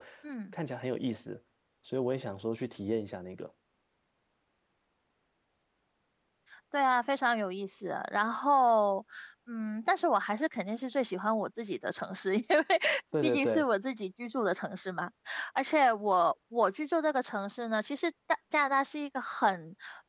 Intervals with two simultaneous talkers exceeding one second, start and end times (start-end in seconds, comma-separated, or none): none